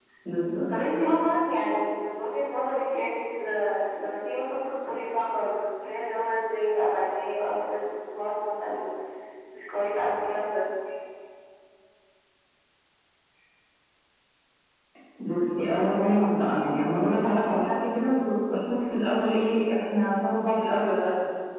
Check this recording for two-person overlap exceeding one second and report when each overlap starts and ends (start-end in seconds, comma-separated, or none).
none